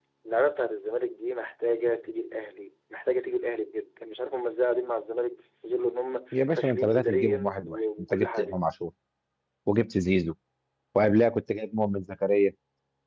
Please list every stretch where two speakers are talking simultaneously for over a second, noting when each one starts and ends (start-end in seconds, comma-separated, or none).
6.3-8.6